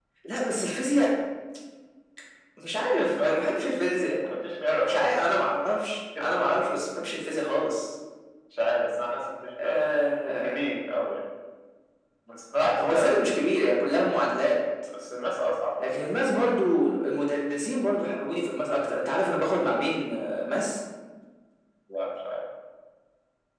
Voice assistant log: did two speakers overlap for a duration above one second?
No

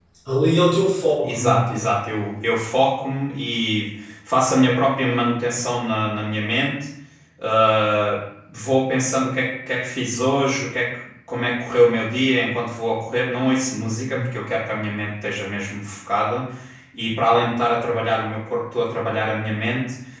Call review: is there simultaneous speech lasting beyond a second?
No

